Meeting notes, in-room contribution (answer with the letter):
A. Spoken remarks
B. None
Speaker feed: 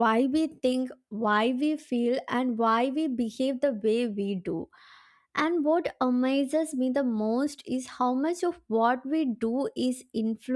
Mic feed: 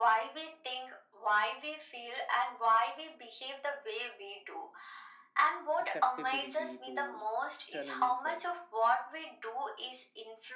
A